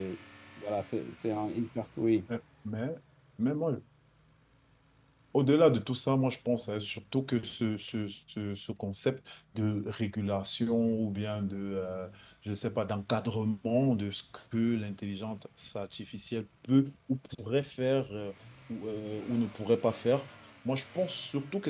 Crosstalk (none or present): none